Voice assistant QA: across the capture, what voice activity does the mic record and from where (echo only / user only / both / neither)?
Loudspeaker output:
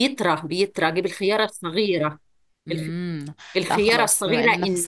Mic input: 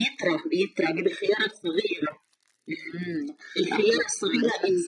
echo only